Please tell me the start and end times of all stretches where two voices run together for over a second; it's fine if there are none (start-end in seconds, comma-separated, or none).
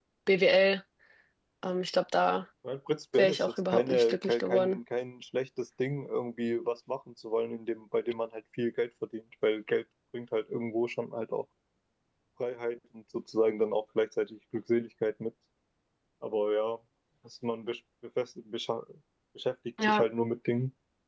3.2-4.8